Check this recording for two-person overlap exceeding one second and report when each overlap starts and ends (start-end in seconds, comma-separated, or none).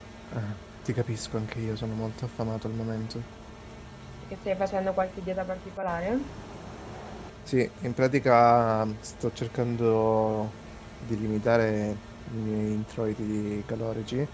none